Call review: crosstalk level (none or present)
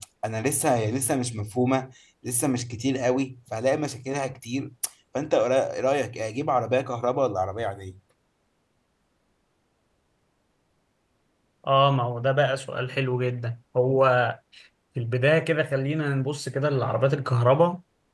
none